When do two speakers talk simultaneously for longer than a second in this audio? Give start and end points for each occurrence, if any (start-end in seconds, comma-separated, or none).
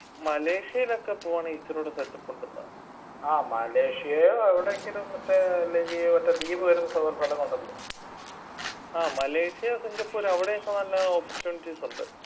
none